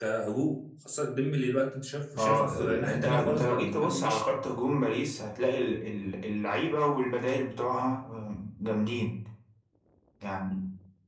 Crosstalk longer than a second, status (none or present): present